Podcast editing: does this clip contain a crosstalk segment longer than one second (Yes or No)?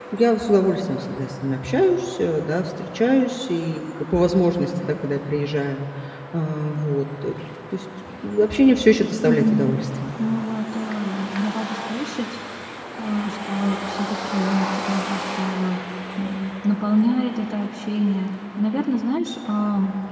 No